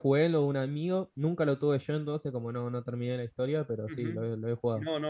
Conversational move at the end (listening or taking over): taking over